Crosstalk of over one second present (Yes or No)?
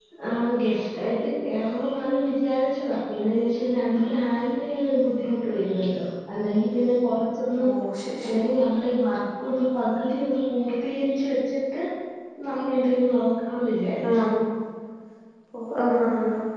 No